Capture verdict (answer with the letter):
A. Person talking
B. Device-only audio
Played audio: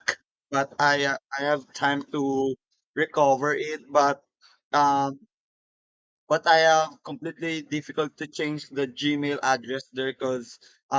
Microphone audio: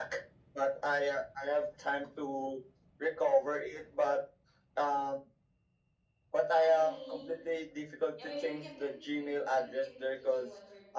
A